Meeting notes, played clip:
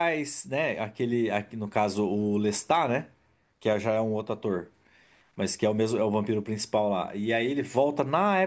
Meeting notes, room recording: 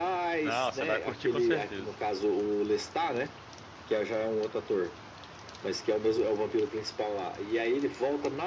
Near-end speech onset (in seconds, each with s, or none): 0.4 s